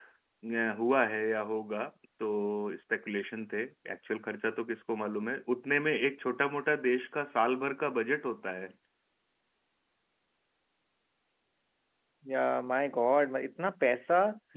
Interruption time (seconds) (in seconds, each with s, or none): none